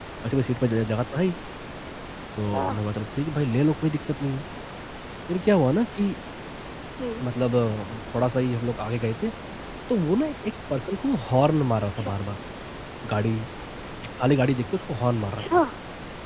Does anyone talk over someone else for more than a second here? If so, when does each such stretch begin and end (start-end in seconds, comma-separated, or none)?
none